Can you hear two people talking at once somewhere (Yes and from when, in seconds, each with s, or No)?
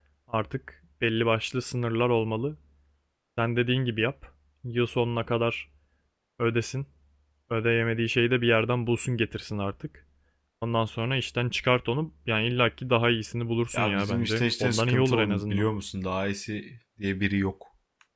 Yes, from 13.7 s